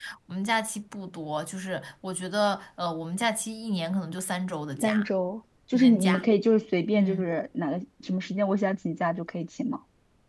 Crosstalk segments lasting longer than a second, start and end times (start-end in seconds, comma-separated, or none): none